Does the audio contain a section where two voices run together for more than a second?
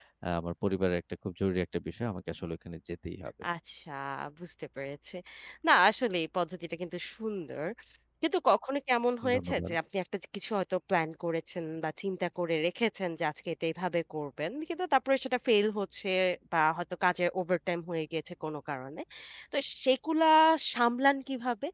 No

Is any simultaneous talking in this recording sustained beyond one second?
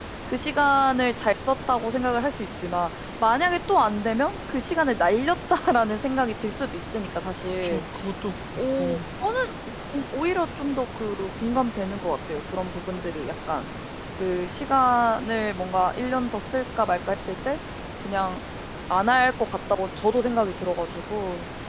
No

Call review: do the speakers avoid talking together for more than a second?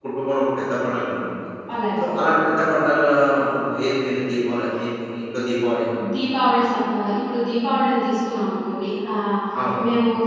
Yes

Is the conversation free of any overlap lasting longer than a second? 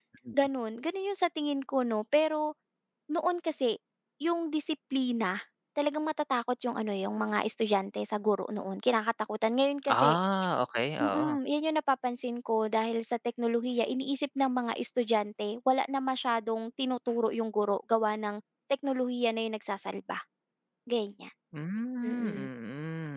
Yes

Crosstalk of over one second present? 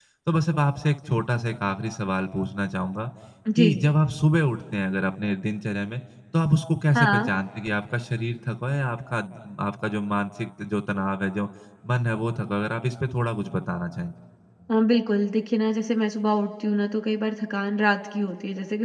No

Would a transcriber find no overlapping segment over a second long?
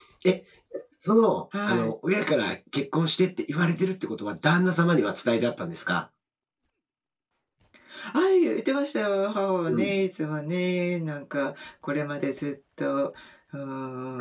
Yes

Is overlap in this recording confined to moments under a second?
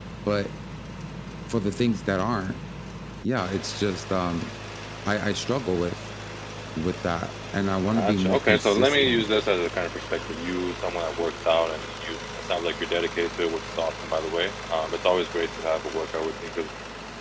No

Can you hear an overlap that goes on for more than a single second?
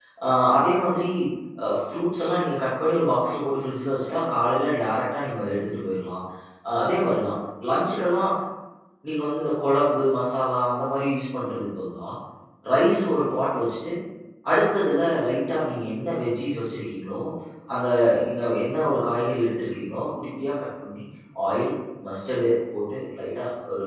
No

